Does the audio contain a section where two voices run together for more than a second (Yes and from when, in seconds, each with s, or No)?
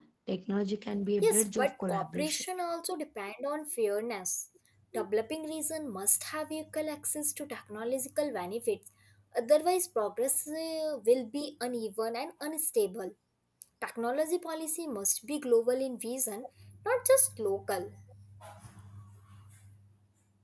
Yes, from 1.2 s